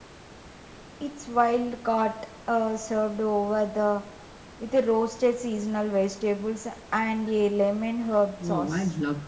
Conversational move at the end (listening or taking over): taking over